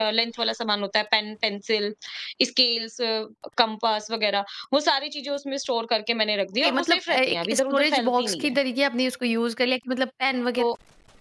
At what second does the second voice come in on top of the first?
6.6 s

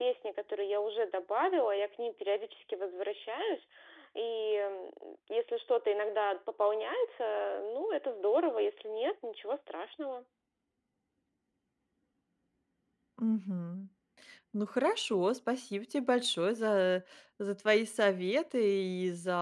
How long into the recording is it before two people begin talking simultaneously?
none

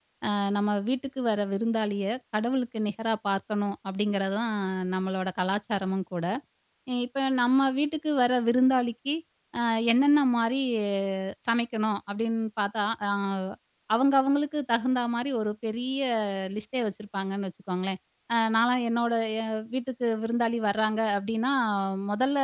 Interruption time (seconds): none

